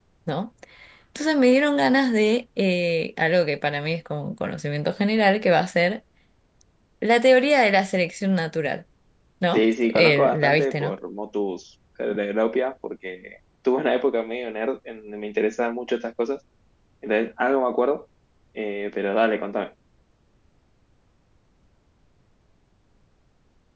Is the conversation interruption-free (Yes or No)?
No